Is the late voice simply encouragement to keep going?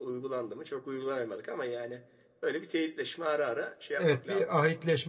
No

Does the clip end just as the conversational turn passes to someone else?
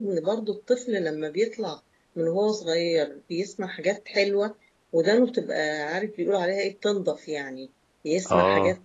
No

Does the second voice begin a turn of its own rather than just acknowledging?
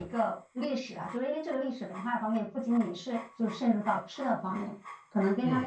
No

